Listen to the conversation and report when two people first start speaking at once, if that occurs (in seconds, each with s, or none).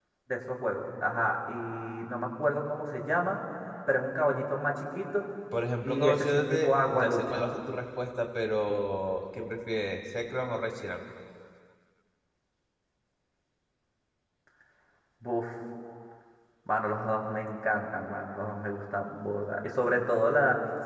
5.8 s